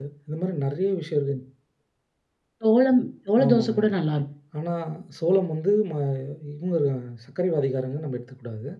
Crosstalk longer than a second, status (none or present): none